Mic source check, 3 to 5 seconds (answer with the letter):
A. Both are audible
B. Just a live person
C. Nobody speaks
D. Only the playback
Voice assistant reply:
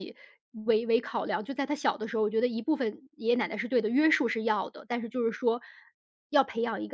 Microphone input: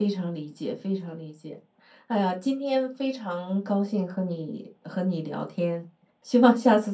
B